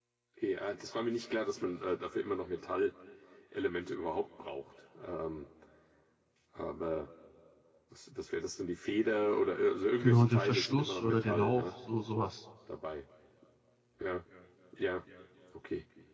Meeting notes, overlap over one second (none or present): present